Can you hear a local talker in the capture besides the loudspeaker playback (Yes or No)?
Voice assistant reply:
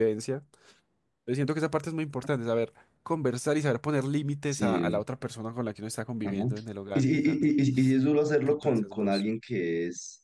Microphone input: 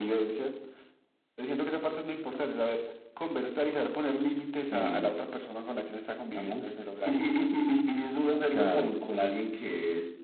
Yes